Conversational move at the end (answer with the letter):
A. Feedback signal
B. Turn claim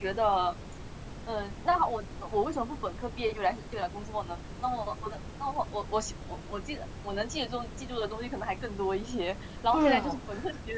A